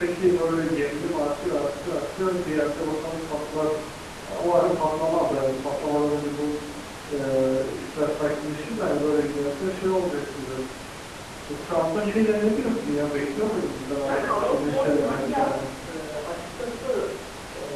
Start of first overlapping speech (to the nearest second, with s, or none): 14 s